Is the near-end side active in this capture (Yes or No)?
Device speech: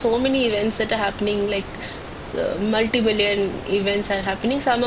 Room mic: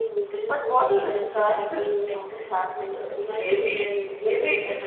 Yes